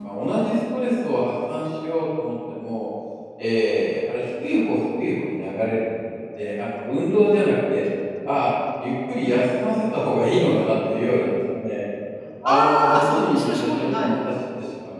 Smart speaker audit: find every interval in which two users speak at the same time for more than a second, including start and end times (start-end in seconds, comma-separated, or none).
12.4-14.2